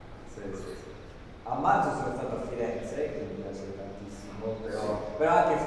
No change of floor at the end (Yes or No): Yes